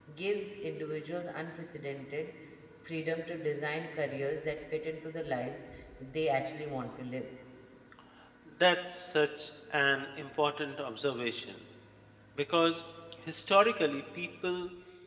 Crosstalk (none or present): none